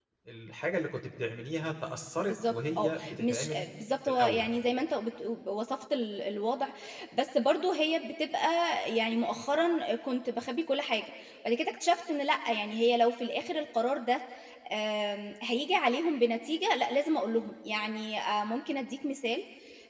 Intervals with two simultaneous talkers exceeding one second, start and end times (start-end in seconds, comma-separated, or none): 2.2-3.6